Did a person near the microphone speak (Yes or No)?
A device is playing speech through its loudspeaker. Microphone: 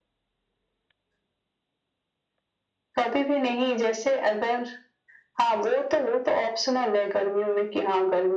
No